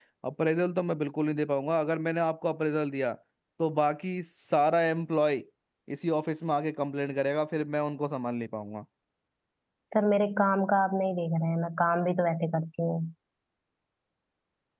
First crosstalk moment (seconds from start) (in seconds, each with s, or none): none